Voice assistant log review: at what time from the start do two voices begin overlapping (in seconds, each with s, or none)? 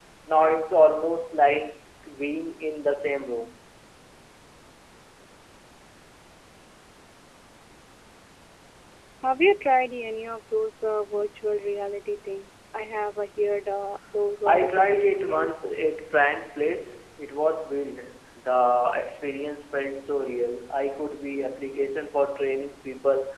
14.5 s